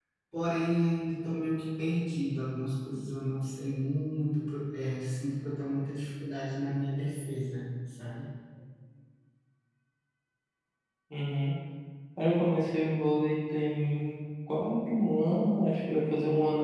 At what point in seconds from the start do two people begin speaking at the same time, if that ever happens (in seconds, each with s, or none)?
none